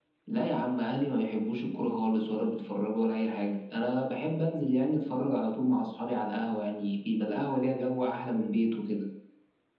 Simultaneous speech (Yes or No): No